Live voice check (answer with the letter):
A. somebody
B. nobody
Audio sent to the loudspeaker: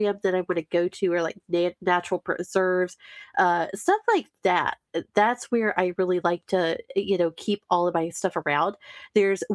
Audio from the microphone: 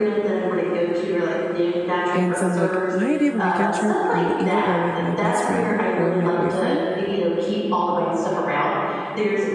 A